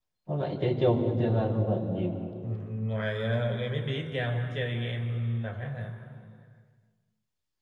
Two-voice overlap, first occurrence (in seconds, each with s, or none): none